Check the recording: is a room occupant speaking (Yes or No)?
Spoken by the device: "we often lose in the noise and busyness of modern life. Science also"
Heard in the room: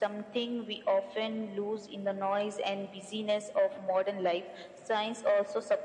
No